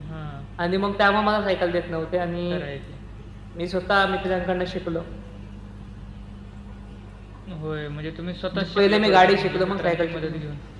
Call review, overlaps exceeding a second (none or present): present